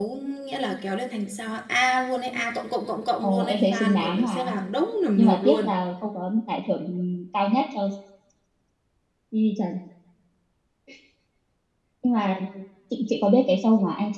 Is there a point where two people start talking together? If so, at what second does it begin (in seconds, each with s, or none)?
3.2 s